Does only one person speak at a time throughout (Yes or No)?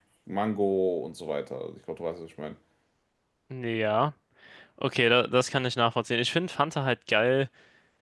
Yes